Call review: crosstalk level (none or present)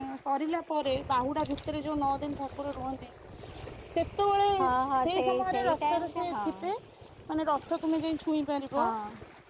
present